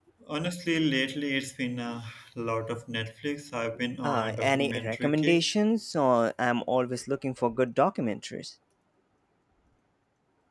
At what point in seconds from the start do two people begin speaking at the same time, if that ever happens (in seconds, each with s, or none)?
4.0 s